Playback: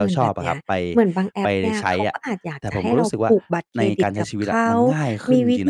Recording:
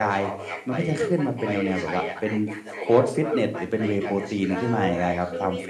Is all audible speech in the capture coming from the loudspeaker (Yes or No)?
No